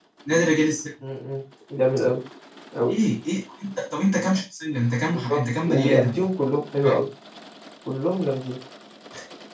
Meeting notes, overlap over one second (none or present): present